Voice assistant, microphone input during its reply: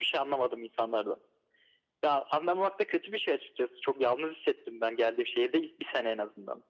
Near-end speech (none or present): none